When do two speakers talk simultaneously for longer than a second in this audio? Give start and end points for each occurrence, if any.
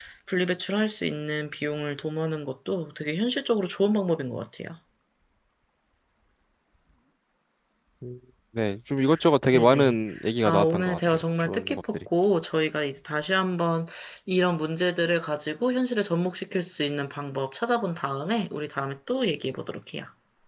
10.4-12.0

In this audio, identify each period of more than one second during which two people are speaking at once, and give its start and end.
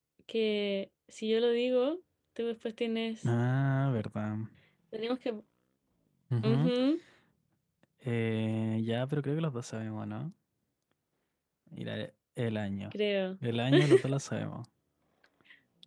none

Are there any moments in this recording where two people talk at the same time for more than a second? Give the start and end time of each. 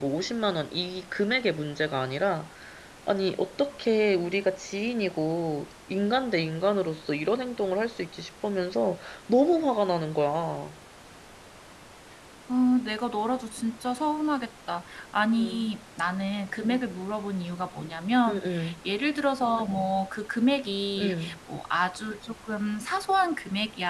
none

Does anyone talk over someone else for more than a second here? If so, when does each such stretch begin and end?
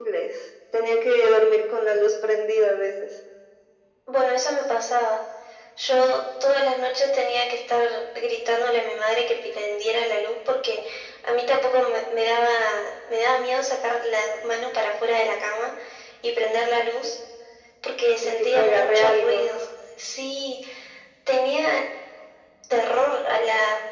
18.2-19.5

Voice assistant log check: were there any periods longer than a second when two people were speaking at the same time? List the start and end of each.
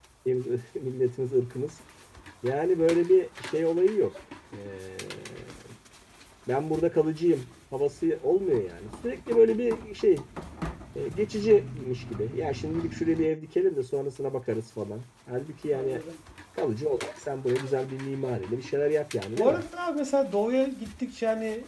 none

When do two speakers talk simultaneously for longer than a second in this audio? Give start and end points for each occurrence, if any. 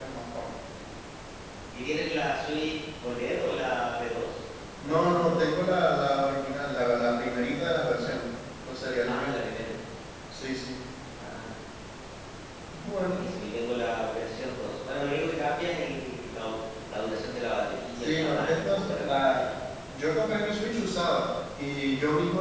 17.9-19.5

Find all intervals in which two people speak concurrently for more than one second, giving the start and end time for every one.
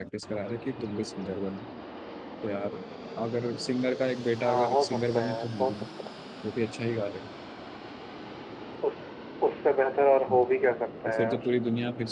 4.4-5.7

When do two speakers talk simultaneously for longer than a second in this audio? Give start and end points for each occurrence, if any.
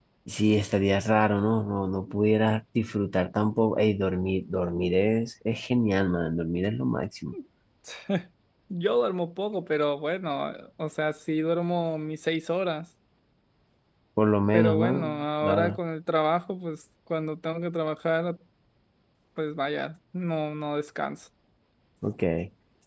14.5-15.8

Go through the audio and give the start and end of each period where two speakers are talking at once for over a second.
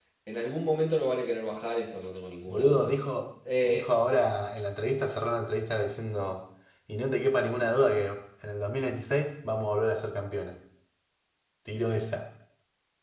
none

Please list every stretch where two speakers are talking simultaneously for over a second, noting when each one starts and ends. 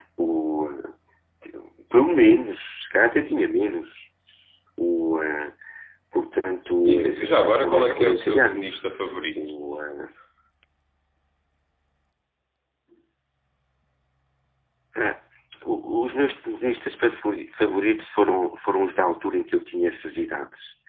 6.9-8.7

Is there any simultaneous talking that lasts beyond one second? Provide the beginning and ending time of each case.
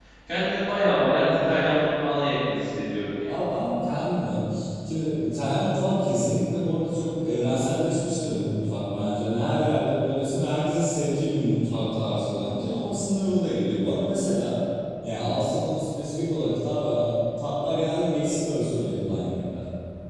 none

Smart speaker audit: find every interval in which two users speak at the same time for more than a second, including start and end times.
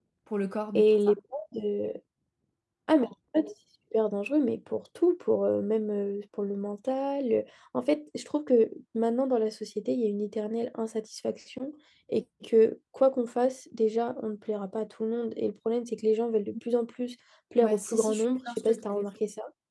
17.6-18.9

